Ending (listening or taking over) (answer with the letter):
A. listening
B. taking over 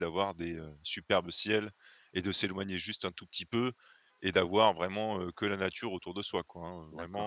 B